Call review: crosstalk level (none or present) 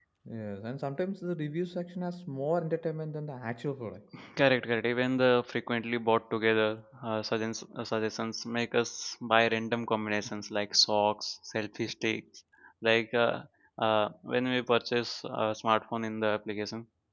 none